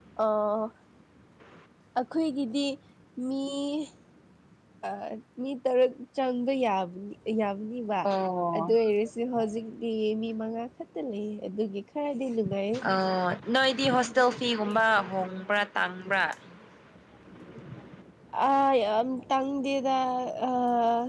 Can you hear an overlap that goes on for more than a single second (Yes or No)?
No